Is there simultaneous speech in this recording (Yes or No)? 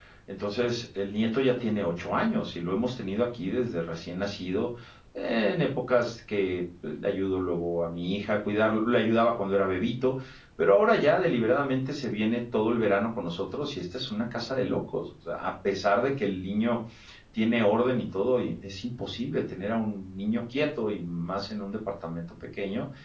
No